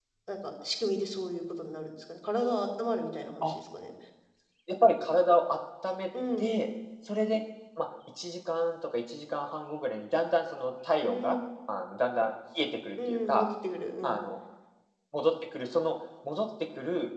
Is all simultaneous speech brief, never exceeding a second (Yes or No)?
Yes